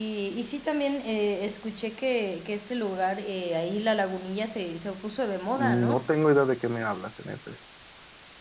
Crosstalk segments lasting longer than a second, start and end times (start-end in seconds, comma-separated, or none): none